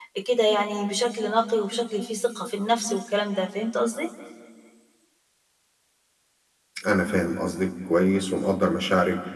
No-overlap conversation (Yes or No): Yes